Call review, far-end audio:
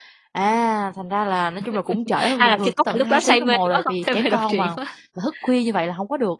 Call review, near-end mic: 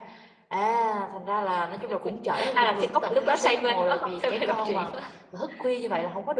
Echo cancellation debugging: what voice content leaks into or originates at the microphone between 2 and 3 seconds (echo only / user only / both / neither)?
echo only